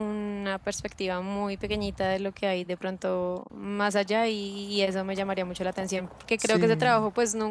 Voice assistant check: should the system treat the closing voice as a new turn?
No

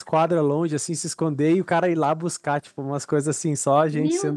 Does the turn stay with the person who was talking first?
No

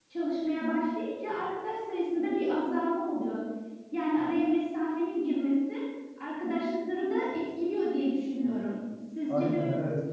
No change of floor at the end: No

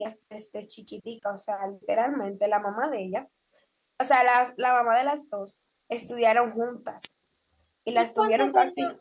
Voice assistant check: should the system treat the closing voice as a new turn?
Yes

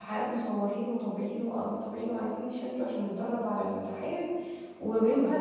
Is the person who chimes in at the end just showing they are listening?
Yes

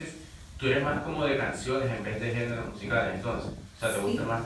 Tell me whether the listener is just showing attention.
No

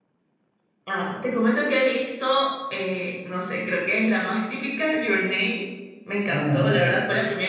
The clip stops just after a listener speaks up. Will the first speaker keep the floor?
Yes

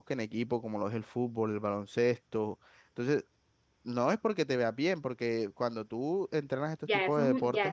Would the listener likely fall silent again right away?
No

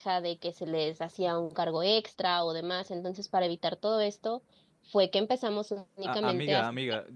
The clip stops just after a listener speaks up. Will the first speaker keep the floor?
No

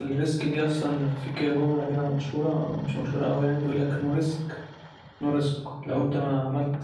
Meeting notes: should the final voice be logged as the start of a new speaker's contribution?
No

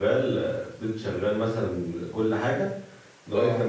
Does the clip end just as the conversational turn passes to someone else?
No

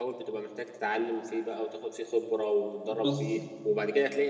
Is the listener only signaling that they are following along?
Yes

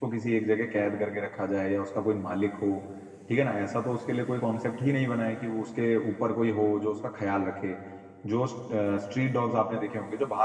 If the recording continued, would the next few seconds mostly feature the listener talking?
No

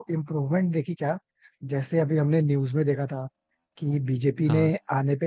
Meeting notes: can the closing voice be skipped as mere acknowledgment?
Yes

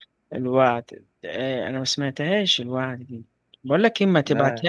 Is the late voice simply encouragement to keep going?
Yes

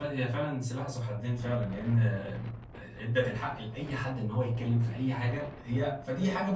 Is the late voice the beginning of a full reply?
No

